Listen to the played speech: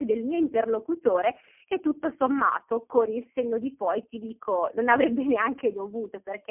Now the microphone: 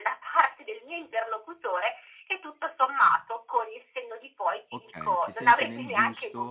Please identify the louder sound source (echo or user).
echo